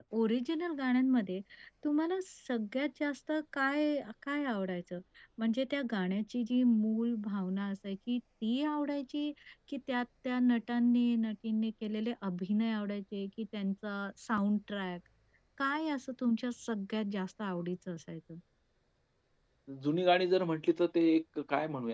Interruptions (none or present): none